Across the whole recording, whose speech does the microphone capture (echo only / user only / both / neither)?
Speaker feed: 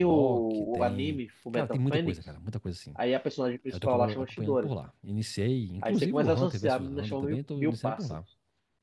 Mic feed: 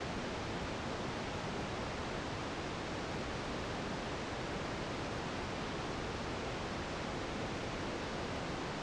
neither